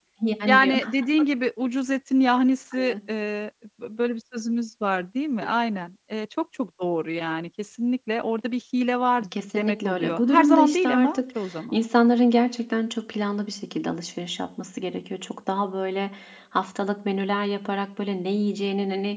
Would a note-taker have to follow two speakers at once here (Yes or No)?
Yes